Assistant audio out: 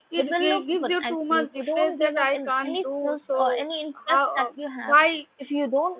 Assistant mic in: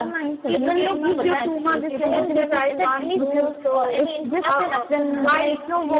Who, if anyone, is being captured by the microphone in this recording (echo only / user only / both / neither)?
both